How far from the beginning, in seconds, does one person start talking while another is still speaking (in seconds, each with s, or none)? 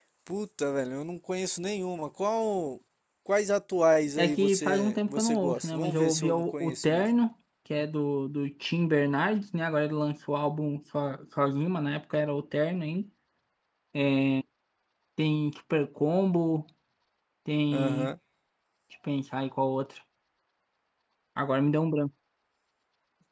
4.2 s